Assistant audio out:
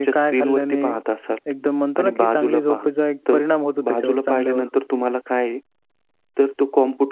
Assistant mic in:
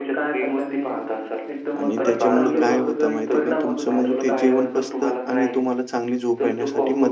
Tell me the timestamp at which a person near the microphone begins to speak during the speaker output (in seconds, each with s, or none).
1.8 s